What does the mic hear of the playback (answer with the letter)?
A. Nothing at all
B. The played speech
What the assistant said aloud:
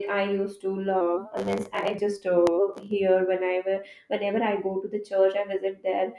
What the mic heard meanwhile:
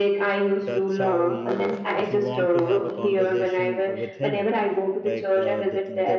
B